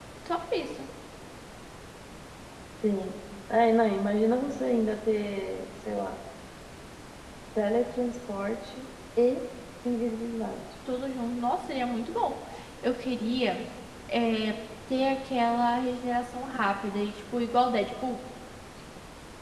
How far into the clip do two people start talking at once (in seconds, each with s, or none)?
none